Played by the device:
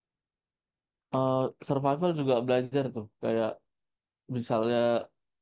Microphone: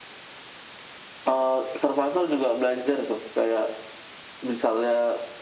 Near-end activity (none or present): none